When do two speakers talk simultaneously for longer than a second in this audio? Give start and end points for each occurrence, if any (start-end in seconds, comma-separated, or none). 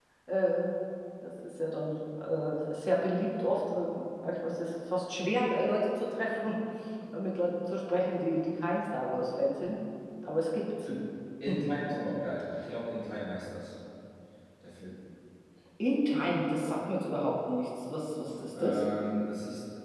none